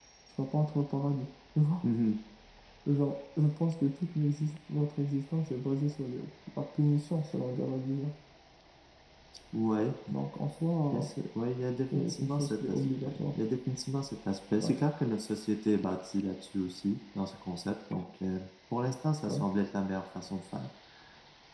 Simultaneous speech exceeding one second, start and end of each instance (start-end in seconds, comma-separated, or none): 11.9-13.3